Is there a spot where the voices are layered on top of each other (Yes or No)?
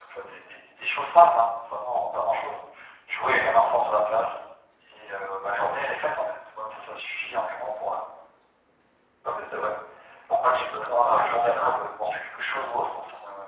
Yes